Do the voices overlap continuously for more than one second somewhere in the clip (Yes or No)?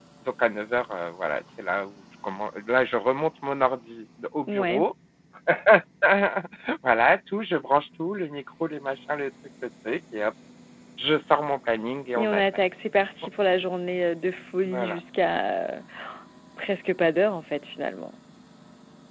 No